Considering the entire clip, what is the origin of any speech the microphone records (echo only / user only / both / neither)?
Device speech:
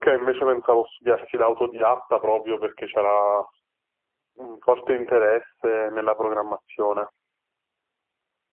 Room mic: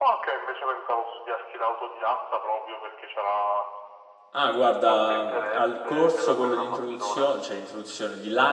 both